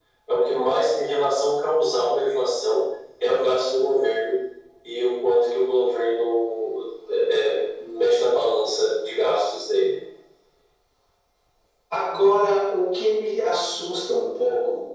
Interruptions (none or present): none